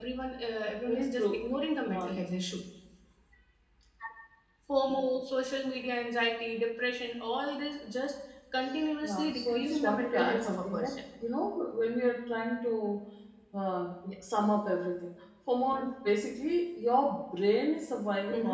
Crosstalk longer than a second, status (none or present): present